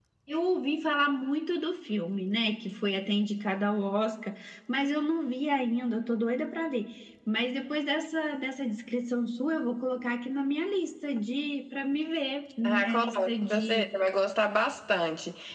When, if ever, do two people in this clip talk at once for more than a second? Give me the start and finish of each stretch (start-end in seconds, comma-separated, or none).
12.7-14.0